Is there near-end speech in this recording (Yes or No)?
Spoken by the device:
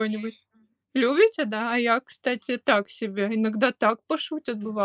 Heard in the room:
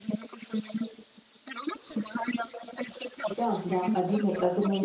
Yes